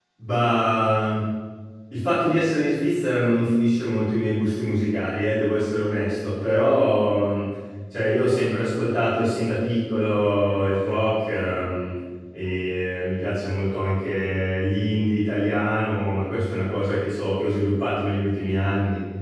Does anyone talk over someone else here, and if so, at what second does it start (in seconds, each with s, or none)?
none